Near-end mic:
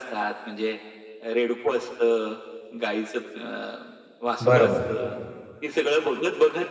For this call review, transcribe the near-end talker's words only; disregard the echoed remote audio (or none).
बरोबर.